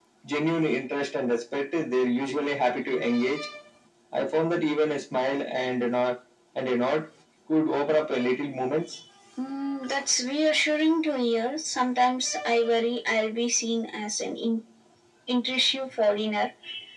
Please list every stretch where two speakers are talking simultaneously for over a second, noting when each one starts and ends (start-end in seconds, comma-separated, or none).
none